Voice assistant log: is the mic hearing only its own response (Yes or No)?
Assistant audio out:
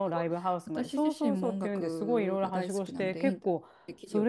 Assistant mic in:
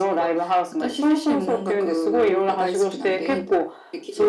Yes